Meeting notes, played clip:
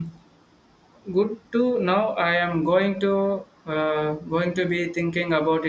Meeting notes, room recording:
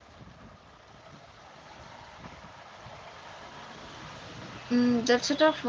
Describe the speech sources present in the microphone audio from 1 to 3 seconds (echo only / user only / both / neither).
neither